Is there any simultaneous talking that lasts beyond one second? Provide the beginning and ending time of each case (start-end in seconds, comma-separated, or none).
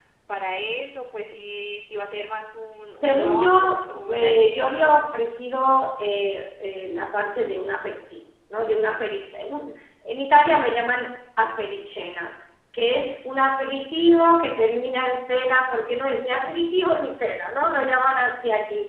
3.0-5.1